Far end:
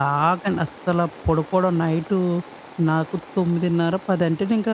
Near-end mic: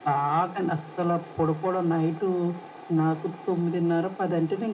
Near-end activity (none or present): none